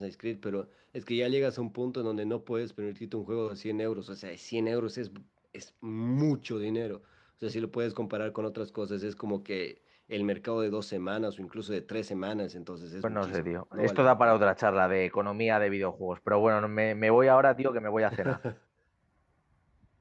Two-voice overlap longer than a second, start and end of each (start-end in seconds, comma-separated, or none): 13.0-14.4